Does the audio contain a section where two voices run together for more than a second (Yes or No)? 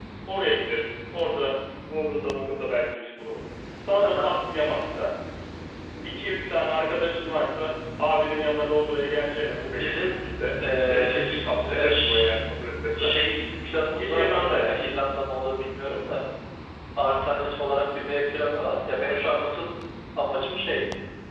Yes